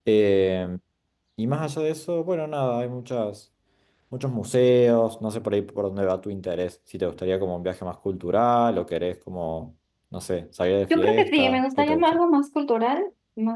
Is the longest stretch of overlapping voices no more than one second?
No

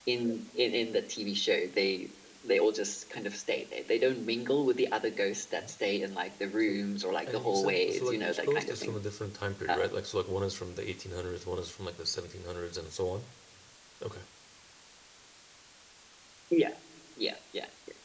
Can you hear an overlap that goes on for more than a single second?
Yes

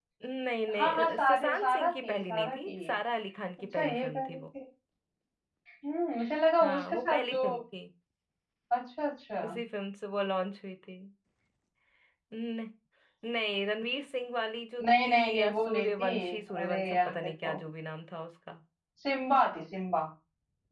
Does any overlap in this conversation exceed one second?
Yes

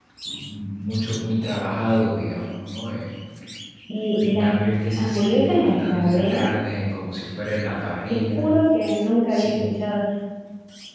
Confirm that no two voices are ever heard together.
No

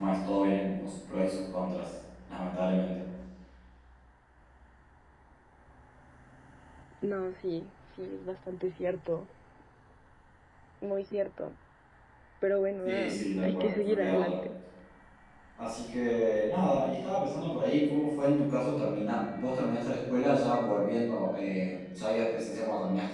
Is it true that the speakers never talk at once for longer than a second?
No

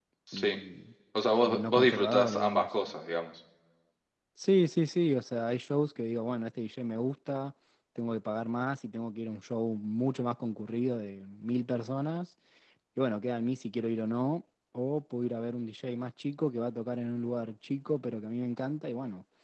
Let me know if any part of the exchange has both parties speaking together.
Yes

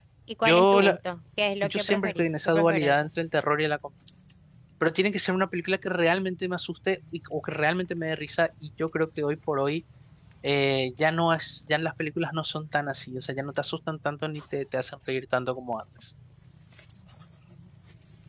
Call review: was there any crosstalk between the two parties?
Yes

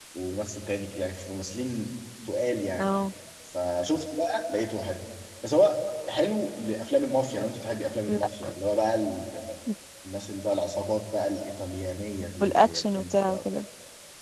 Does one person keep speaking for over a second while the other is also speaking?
Yes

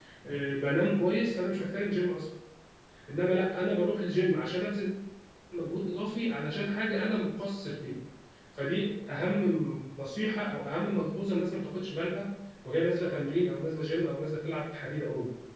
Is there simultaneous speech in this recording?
No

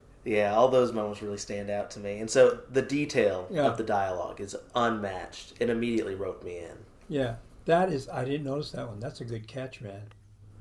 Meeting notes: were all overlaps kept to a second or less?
Yes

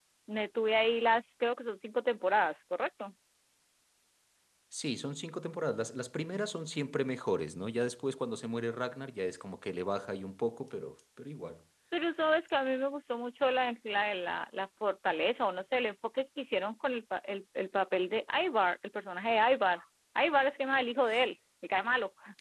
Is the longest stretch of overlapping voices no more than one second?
Yes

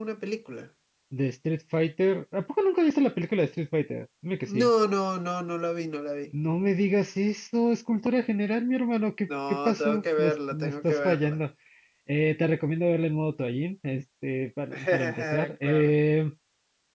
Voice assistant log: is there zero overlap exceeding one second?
No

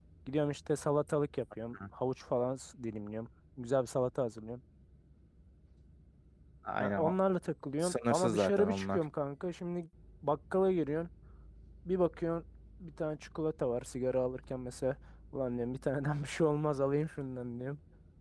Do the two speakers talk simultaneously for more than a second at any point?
Yes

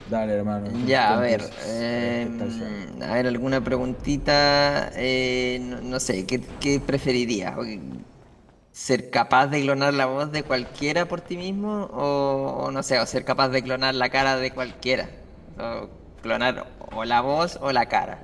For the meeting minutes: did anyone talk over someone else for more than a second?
Yes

